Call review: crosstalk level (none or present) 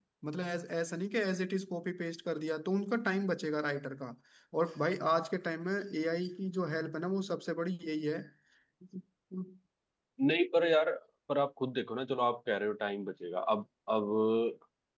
none